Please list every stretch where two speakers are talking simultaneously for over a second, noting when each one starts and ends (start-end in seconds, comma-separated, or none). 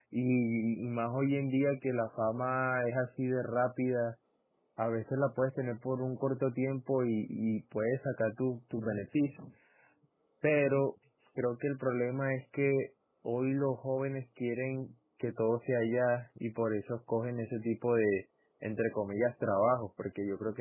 none